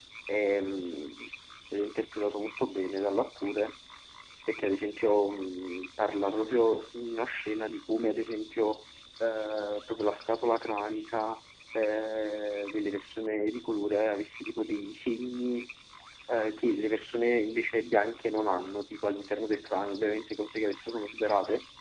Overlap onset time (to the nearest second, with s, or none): none